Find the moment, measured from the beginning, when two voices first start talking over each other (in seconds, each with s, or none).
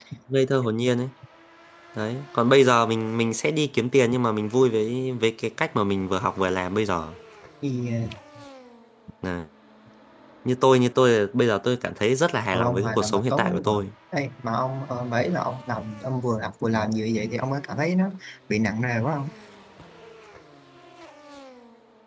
12.5 s